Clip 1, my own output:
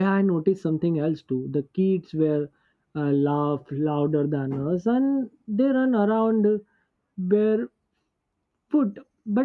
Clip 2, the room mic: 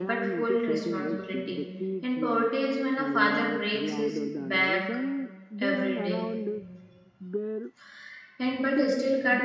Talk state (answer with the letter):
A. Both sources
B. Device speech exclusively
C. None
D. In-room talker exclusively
A